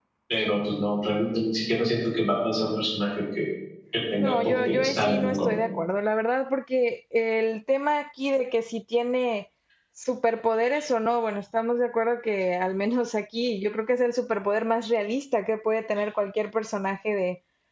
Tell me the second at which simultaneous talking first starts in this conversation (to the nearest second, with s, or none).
4 s